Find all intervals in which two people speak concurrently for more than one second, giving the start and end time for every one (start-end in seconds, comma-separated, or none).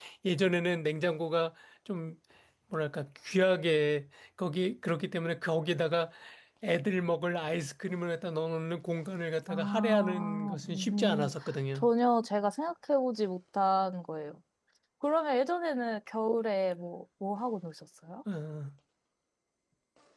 9.5-11.3